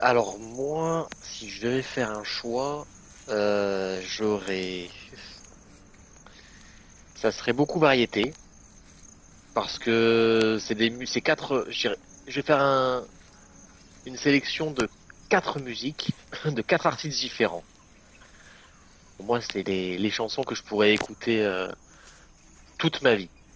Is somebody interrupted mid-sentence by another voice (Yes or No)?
No